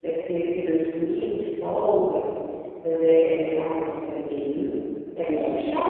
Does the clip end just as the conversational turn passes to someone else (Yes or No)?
Yes